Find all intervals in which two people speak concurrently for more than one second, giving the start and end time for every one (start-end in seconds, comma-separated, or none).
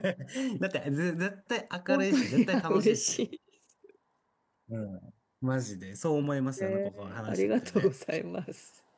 1.9-3.3, 6.6-7.9